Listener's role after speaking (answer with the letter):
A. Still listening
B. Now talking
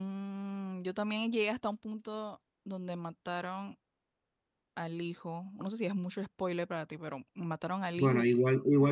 B